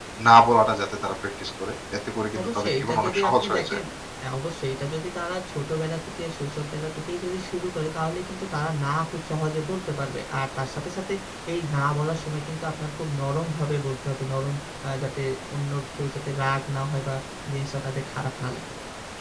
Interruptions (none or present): present